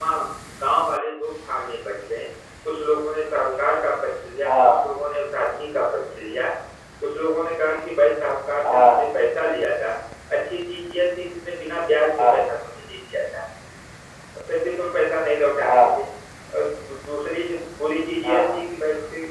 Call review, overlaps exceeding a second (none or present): none